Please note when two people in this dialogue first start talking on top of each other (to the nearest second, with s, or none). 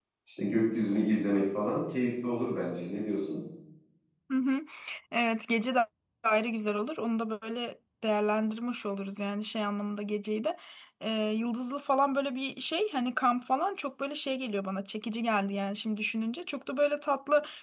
none